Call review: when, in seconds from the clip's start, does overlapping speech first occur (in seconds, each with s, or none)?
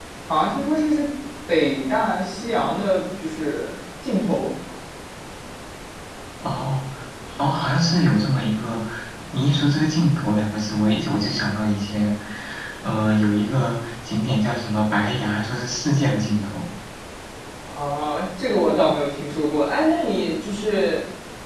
none